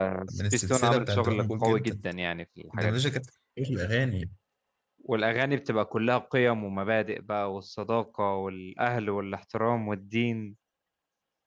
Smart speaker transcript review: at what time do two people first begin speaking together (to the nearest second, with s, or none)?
1 s